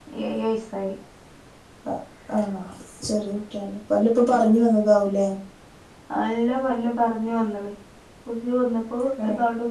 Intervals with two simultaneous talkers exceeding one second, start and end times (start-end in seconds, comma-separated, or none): none